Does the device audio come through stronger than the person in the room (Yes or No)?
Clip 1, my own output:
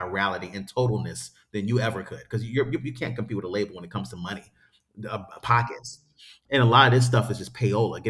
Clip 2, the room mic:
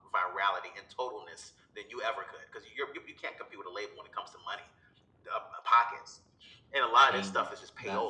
Yes